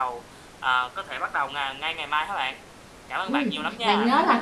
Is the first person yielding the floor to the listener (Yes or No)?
Yes